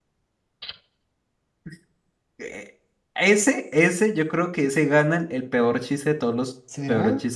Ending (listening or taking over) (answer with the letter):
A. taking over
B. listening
B